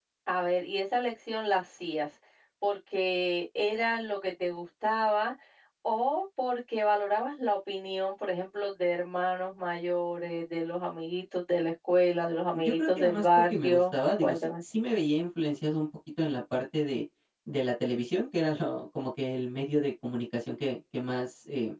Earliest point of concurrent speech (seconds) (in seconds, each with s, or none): 12.5 s